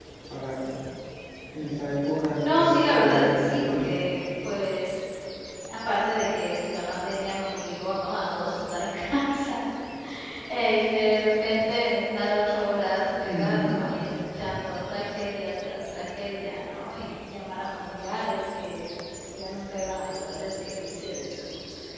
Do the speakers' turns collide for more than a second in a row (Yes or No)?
Yes